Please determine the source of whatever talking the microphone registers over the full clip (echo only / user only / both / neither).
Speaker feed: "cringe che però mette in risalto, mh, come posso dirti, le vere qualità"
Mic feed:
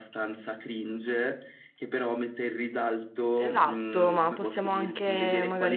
both